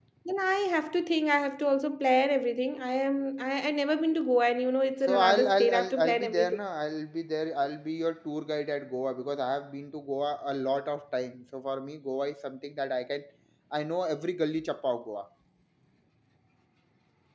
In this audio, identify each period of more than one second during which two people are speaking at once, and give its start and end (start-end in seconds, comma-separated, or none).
5.1-6.6